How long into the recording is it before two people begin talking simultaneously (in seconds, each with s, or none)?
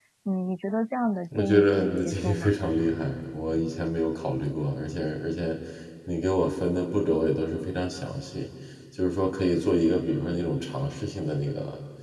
1.3 s